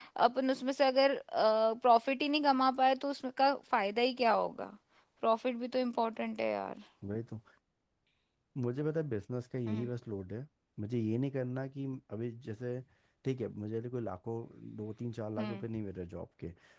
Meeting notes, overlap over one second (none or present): none